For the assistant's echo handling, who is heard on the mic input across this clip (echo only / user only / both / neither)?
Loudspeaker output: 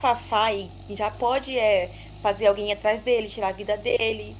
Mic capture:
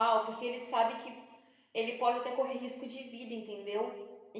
user only